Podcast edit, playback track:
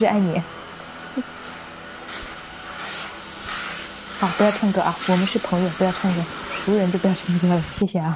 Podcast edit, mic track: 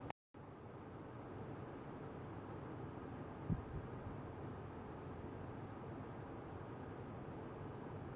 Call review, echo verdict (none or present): none